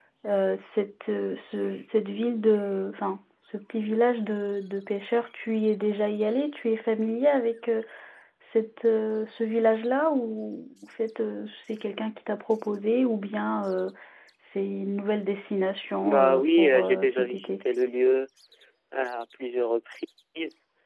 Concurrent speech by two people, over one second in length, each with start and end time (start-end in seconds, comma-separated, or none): 16.0-17.6